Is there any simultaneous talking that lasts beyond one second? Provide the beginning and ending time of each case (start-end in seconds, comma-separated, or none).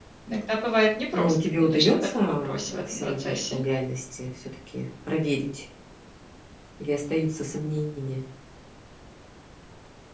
1.1-3.6